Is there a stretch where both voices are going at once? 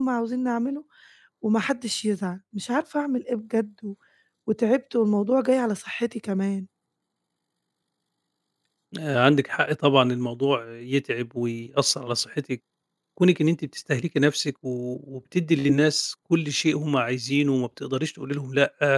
No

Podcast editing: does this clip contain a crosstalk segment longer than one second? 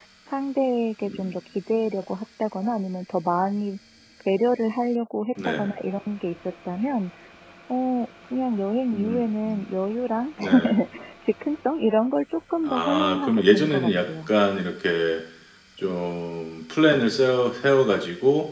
Yes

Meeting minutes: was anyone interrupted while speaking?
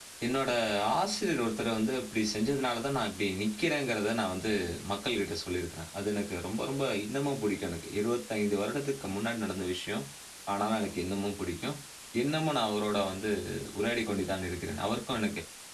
No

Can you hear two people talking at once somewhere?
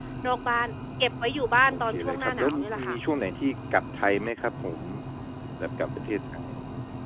Yes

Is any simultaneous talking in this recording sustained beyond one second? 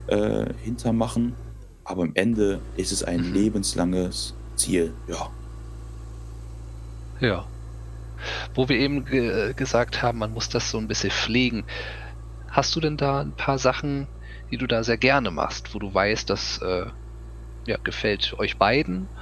No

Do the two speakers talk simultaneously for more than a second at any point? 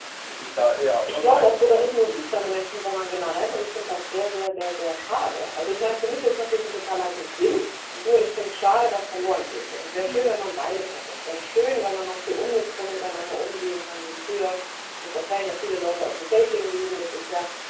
Yes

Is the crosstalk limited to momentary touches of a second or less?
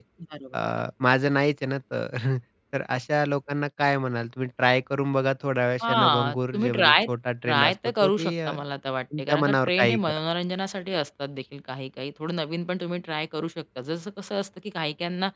No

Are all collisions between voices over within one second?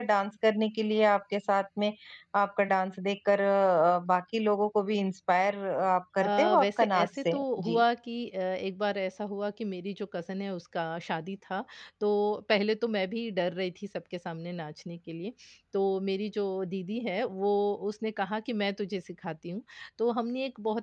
No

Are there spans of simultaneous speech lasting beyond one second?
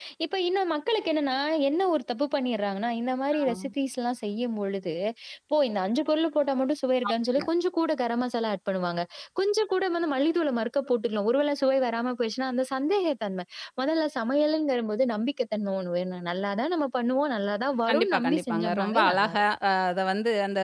Yes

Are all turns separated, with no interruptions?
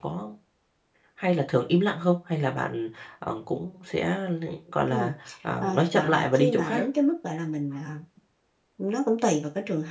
No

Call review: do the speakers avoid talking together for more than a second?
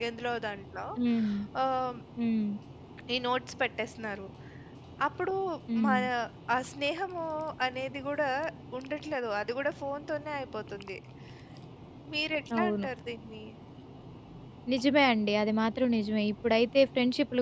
Yes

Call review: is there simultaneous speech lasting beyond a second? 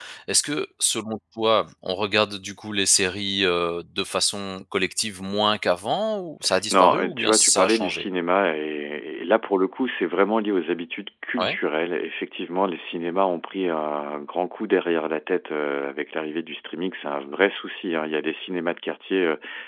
Yes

